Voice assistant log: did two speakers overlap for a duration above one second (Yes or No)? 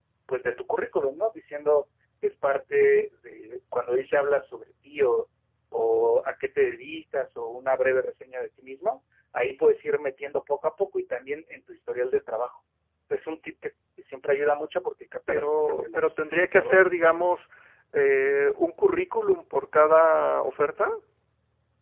Yes